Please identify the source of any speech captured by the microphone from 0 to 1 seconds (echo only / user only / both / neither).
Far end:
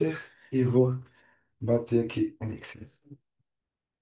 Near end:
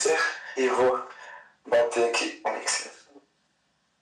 echo only